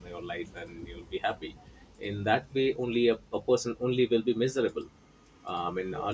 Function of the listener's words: listening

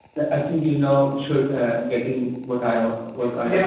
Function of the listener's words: taking over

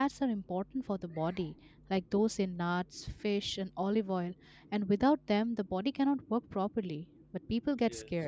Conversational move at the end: listening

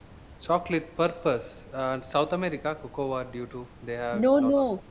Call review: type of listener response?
taking over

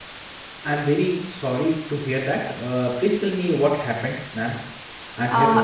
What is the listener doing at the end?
taking over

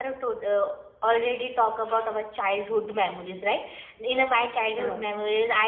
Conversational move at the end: listening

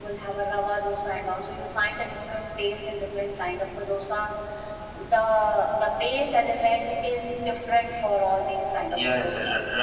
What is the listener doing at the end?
taking over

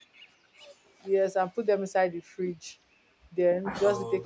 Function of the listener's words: listening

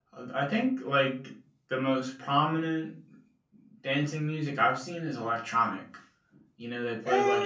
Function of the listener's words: listening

